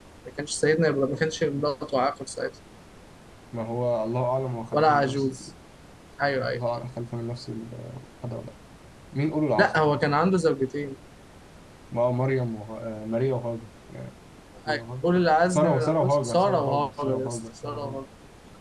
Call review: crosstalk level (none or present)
present